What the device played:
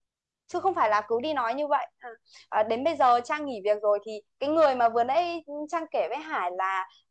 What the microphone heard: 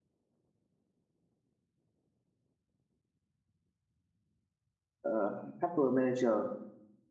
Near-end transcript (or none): ờ, HR manager